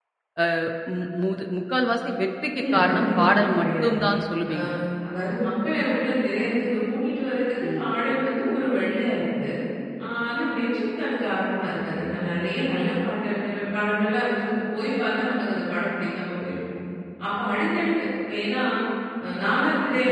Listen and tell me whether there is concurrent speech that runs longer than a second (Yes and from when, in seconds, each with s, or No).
Yes, from 2.6 s